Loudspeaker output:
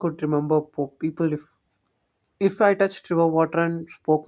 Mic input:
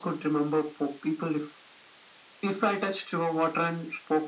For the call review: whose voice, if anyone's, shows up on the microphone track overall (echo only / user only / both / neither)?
echo only